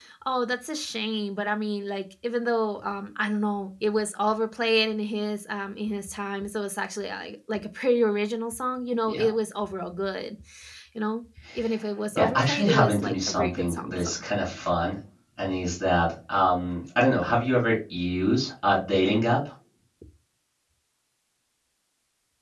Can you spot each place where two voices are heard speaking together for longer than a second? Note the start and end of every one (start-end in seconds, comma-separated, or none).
12.2-14.2